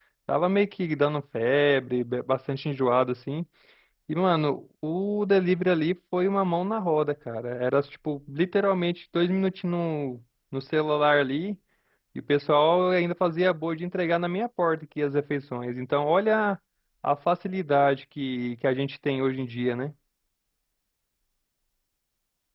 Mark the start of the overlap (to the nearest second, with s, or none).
none